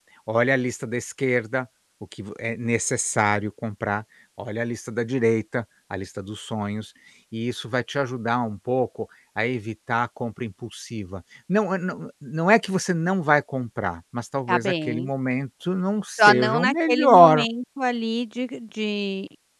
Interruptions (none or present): present